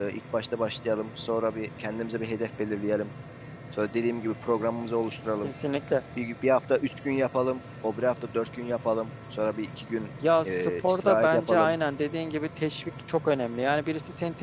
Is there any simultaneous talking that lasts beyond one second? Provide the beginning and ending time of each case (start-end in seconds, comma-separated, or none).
10.4-11.7